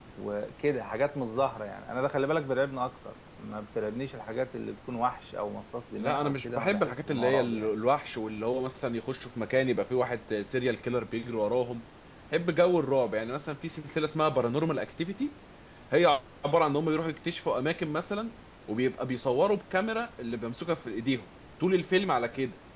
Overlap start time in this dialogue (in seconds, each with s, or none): 6.0 s